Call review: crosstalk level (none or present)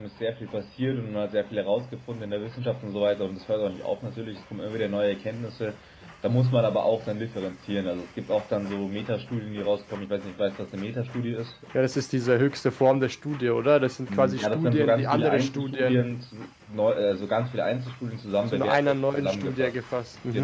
present